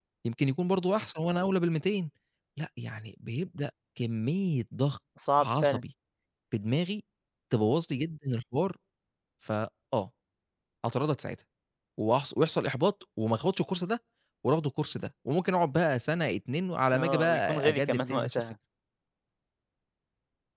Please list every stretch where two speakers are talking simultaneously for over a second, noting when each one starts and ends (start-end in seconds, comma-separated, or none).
16.9-18.4